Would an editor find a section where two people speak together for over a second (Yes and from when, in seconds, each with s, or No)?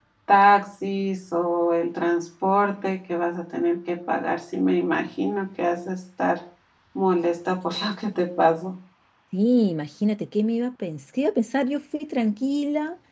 No